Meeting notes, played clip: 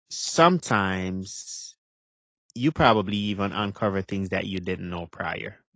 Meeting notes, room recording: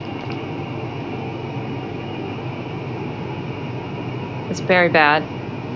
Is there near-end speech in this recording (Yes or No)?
Yes